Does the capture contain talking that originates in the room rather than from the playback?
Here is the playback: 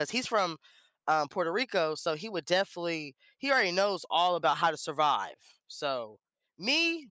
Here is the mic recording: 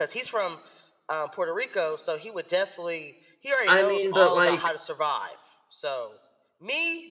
Yes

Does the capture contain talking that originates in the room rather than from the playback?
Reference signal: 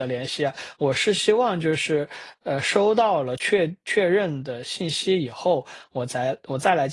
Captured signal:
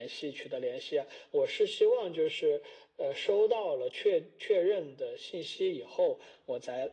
No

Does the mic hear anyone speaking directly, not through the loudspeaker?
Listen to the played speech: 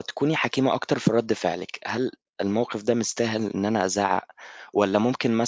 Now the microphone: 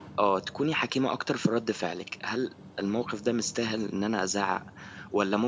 No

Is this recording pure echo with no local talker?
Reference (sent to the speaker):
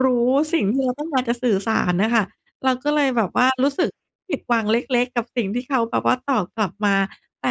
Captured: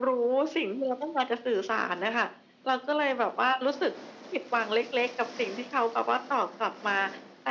Yes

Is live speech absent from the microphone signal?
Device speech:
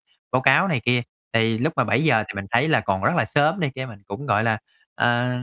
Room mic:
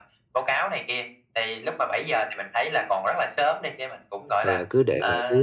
No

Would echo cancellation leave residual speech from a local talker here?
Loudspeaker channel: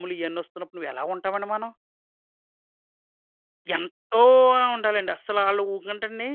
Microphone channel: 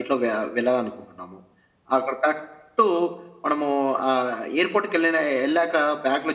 Yes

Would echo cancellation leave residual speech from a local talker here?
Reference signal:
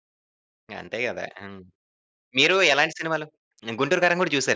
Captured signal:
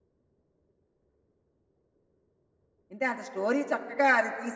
Yes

